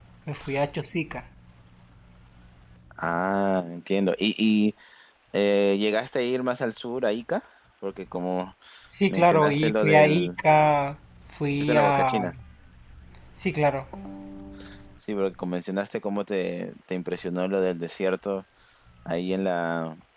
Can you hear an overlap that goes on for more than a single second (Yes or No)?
Yes